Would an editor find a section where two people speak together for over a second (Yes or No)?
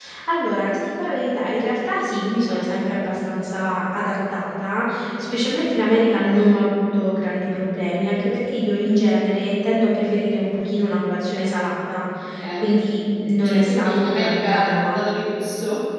Yes